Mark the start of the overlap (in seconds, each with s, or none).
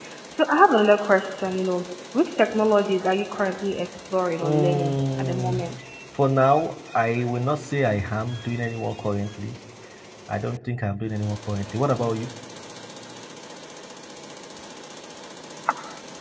4.4 s